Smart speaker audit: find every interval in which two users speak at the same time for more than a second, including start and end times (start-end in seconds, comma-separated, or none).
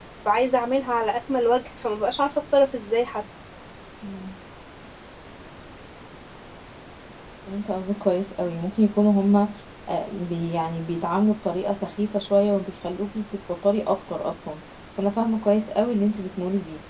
none